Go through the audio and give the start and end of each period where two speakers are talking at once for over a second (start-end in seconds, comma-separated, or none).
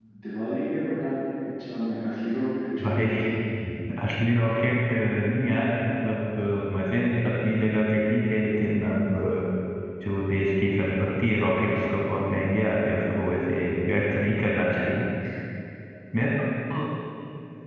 none